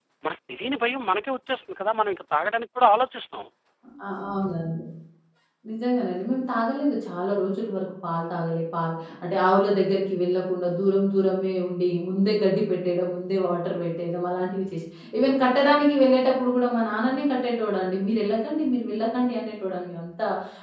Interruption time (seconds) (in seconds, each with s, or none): none